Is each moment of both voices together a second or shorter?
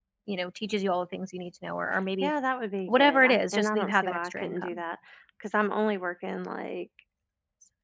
No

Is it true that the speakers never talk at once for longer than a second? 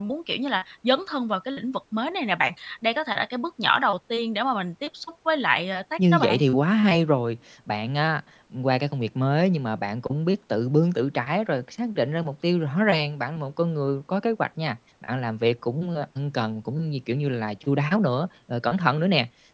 Yes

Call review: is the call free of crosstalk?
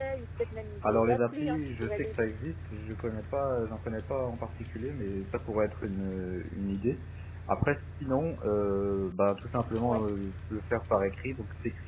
No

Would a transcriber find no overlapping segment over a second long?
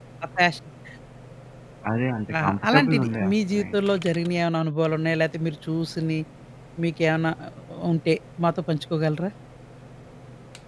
No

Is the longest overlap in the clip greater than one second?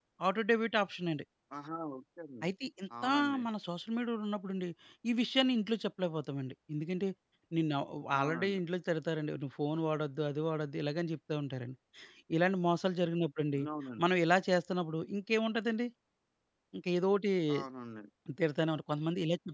No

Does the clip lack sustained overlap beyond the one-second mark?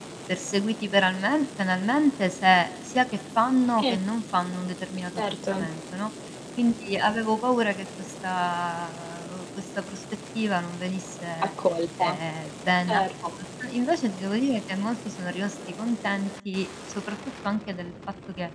Yes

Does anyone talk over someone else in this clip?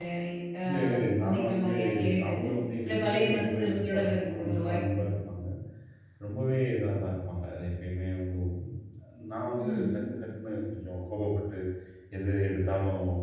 Yes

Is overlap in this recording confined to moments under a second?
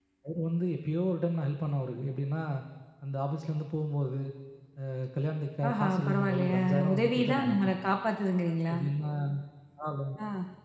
No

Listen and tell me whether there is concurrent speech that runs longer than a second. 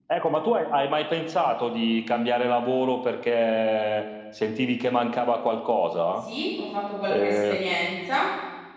No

